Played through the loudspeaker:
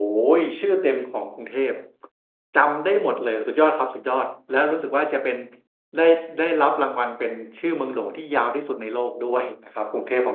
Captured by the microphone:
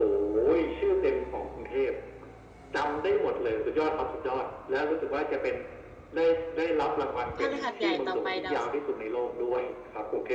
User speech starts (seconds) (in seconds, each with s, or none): 7.3 s